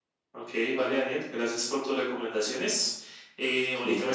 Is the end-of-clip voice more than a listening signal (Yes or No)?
No